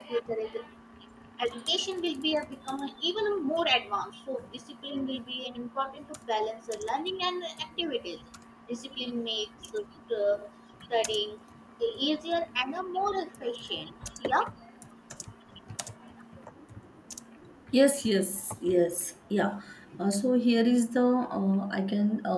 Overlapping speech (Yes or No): No